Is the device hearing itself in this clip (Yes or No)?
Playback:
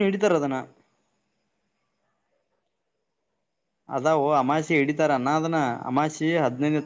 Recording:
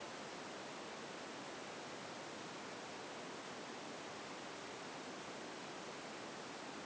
No